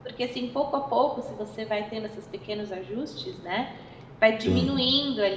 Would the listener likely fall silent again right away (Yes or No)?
Yes